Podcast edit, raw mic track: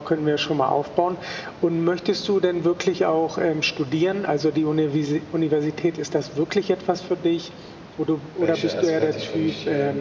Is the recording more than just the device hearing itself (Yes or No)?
Yes